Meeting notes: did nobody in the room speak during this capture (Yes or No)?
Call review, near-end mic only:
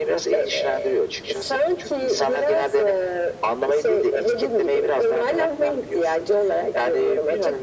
Yes